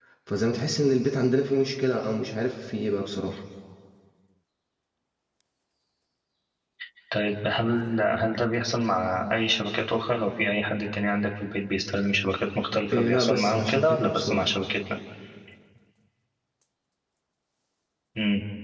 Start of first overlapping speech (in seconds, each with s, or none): 12.9 s